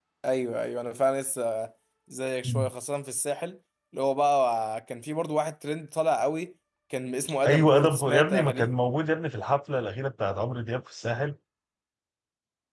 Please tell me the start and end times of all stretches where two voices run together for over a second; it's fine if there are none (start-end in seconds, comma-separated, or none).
7.4-8.7